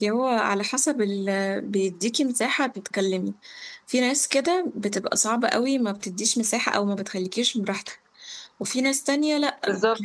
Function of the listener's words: listening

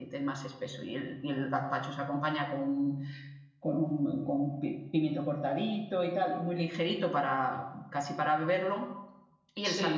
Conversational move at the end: listening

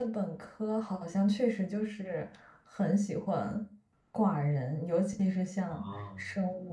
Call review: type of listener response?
listening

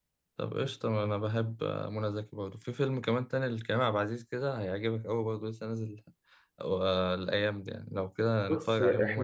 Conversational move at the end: taking over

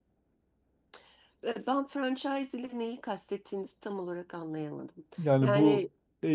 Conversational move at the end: taking over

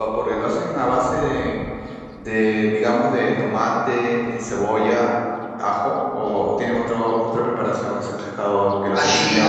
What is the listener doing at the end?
taking over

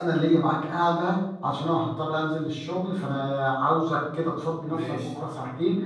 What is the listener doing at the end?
listening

